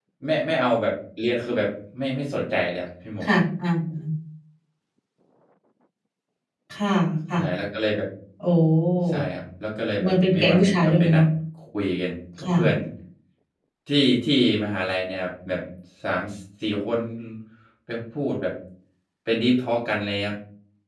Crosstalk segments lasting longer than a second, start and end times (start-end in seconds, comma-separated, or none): 10.0-11.2